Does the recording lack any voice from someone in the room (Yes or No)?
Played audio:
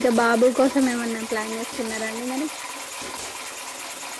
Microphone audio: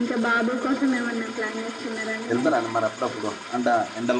No